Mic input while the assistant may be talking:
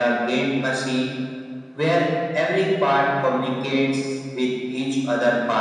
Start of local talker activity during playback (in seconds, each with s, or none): none